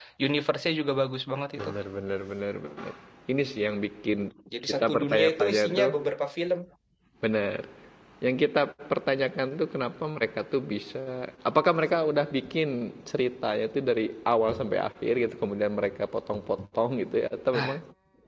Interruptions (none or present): present